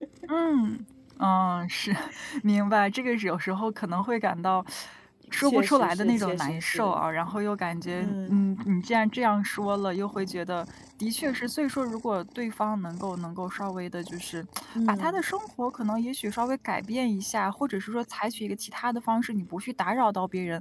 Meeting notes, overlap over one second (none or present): present